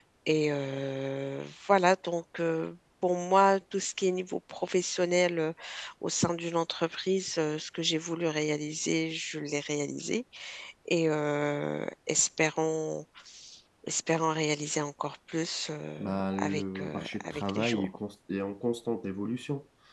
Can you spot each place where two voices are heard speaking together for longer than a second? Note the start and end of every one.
16.0-17.9

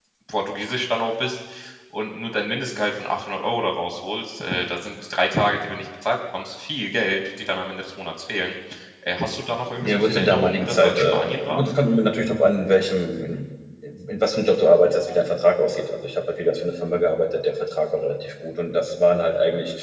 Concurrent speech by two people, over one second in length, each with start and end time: 9.8-11.6

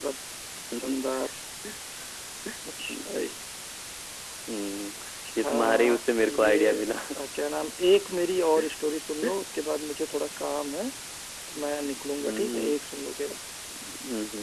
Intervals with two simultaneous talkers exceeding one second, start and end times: 5.4-6.7

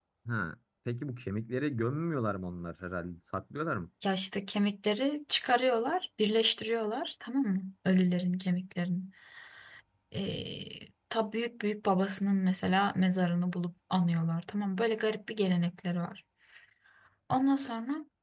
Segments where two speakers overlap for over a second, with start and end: none

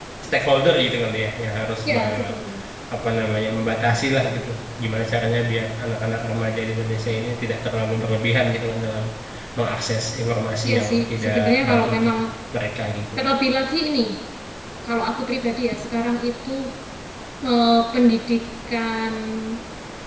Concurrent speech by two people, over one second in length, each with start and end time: 10.7-12.1

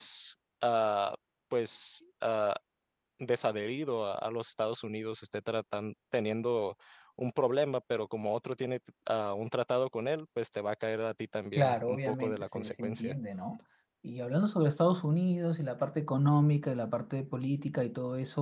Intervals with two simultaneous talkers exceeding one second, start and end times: 11.6-13.1

